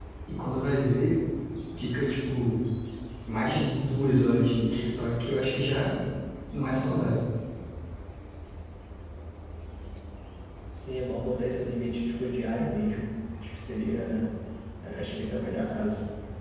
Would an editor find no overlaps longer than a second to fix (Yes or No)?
Yes